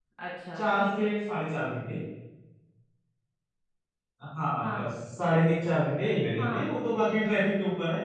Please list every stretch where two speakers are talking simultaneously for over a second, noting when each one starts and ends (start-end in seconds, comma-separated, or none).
none